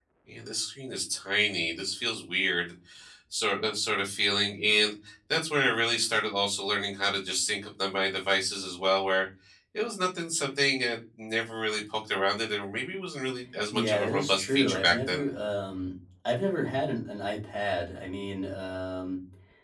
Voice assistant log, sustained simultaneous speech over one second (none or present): present